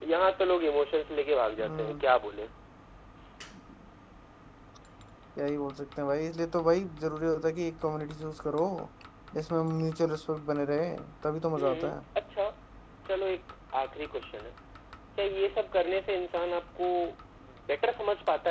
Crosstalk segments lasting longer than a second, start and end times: none

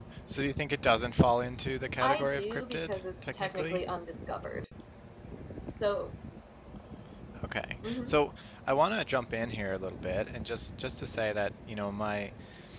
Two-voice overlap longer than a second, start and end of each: 2.0-3.8

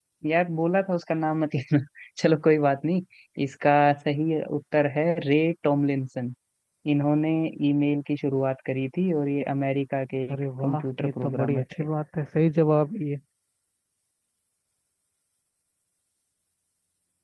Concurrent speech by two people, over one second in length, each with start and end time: 10.3-11.6

